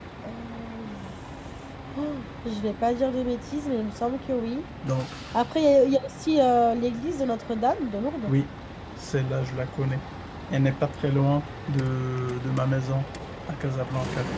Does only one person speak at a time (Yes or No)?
Yes